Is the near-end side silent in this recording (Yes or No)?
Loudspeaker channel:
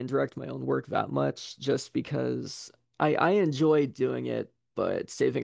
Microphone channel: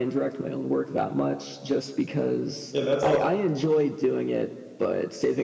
No